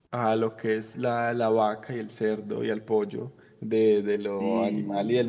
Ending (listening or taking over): listening